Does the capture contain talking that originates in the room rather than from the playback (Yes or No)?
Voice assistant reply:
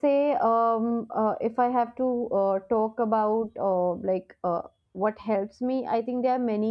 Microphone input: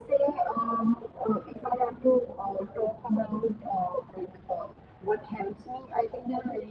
No